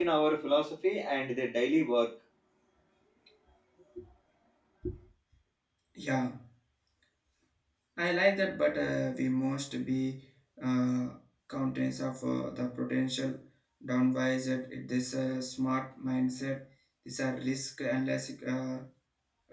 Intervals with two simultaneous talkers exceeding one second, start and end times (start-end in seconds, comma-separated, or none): none